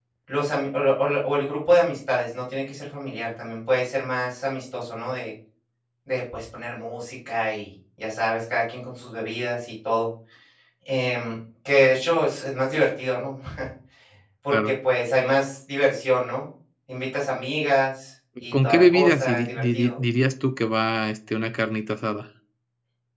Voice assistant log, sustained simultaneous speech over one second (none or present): present